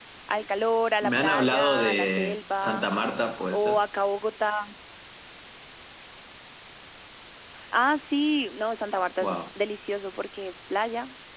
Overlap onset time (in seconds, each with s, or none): 1.0 s